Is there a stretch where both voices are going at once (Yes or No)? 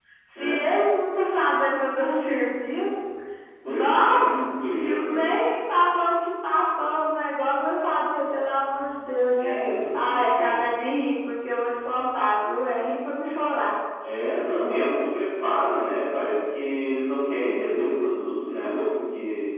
Yes